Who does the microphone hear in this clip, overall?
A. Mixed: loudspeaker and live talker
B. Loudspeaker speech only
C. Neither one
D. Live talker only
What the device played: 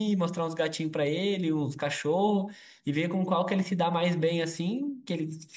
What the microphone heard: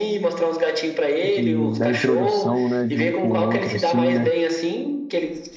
A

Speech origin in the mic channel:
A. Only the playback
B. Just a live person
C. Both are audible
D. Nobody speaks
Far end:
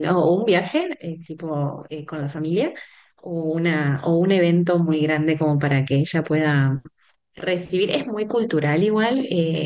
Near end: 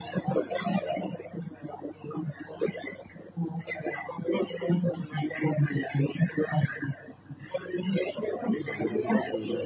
C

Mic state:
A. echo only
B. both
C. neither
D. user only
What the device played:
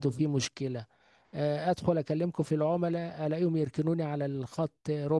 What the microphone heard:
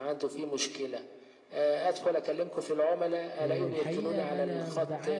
B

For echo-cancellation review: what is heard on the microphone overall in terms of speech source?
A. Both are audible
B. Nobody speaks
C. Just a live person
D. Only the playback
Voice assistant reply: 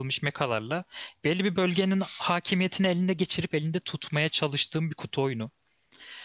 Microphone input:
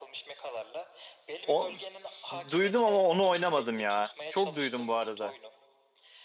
A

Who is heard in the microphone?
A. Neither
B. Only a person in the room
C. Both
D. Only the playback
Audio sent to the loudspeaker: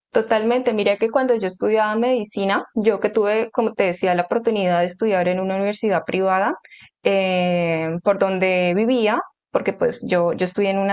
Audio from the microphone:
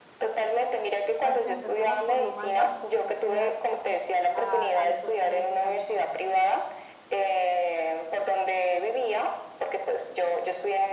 C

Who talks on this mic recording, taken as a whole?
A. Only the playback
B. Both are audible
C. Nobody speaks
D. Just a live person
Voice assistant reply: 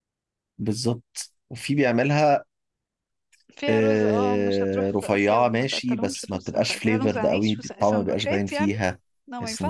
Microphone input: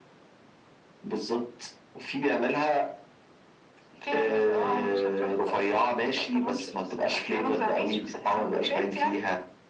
A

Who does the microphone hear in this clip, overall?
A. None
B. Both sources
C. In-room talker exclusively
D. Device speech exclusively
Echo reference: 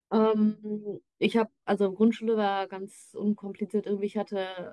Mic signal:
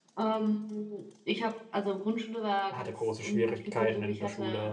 B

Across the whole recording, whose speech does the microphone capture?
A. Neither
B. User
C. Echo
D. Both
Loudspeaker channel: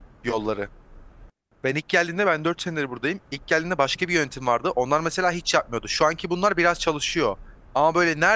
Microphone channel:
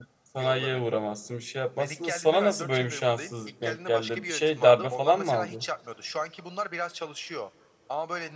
D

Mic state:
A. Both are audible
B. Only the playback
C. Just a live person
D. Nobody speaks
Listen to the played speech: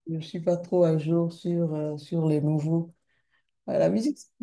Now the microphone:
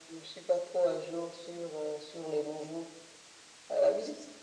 B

